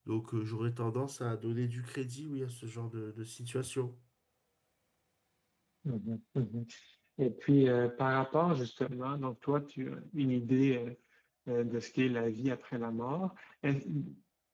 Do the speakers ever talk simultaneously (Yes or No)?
No